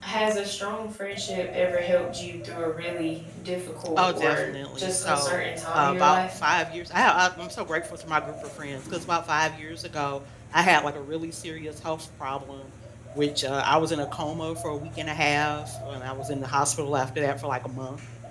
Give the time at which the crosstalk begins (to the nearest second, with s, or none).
4 s